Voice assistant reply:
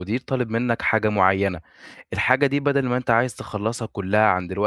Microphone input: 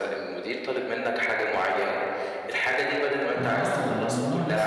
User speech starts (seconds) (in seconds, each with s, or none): 3.4 s